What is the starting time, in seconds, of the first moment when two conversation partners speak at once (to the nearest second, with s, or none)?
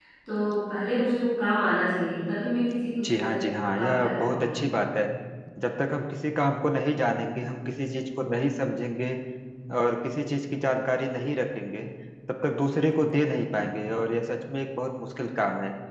3 s